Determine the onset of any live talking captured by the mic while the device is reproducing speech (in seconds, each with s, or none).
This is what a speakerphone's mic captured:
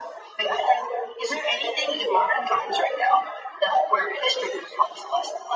none